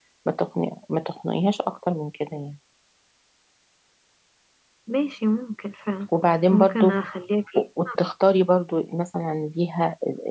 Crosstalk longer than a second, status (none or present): none